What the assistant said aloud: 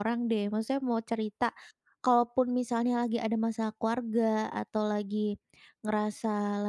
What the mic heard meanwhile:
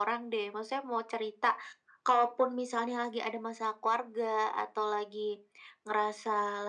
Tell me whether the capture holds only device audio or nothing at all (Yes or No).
Yes